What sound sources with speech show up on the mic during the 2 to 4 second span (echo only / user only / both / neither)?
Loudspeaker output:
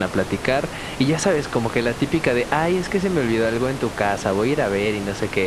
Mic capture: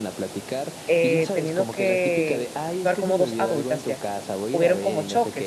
both